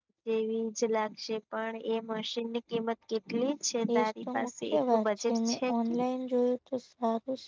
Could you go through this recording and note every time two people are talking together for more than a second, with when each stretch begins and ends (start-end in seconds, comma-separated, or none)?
4.0-5.6